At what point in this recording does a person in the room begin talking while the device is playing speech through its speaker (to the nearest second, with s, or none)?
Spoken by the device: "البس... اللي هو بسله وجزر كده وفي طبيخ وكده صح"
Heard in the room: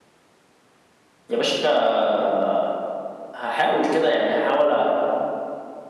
1 s